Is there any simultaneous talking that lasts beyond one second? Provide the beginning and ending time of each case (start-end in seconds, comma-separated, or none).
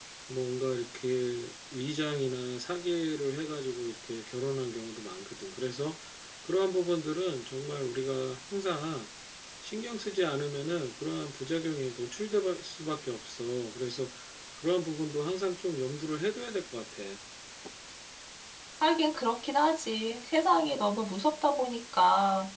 none